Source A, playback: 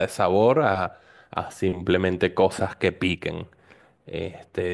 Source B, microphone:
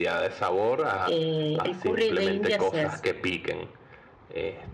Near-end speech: present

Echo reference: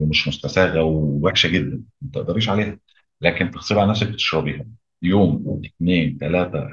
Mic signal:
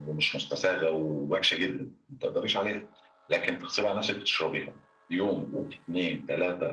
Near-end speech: none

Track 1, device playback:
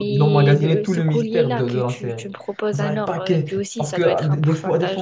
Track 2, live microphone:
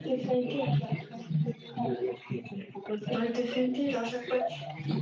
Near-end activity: present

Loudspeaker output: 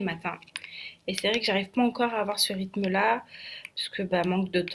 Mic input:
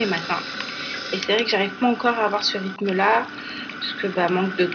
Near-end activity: none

